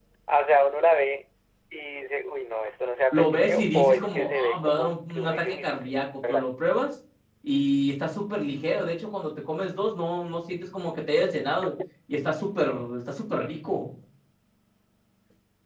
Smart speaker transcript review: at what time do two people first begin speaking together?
3 s

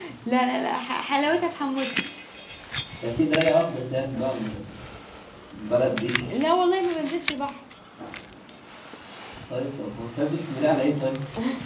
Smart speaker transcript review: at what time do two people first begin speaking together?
none

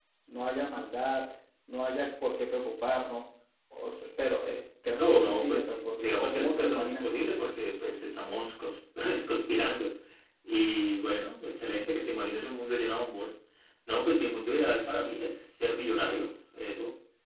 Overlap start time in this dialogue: 5 s

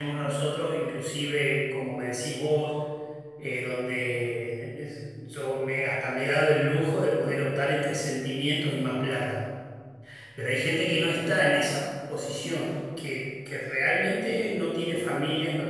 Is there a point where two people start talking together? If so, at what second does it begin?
none

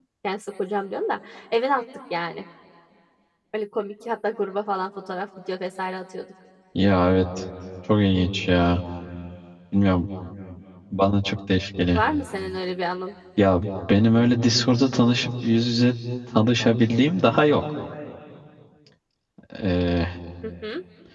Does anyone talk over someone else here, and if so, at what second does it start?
none

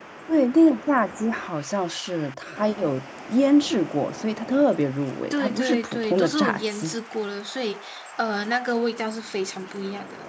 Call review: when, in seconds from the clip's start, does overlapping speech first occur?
5 s

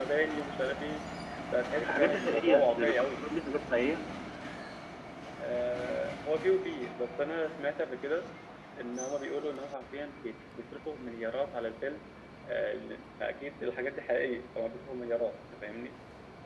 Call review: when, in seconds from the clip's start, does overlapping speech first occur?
2 s

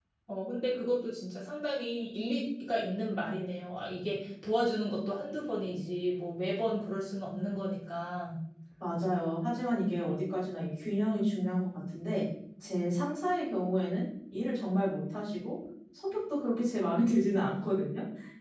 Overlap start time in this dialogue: none

